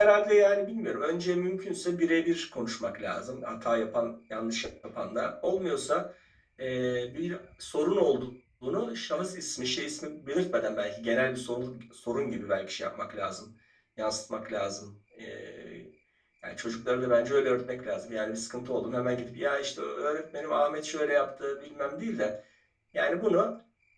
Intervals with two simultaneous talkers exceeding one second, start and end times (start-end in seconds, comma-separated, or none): none